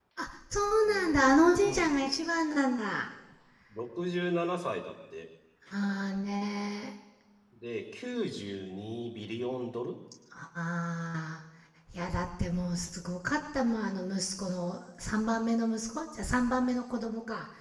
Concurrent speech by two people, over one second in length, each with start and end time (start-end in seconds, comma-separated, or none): none